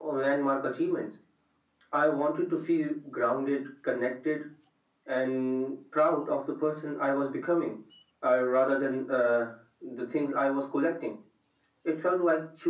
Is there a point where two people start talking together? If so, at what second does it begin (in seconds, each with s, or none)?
none